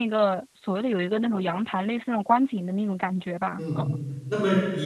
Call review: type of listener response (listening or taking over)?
taking over